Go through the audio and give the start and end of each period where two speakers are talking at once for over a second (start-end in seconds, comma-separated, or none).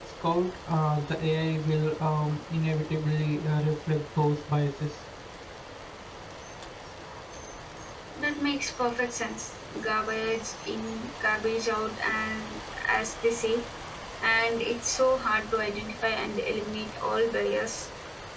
none